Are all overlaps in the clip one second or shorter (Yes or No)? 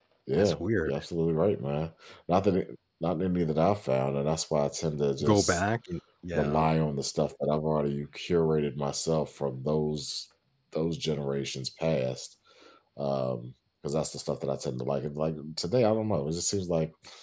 Yes